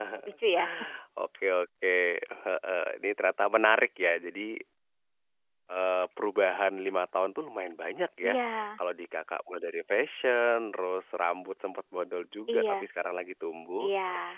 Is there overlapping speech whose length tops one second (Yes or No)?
No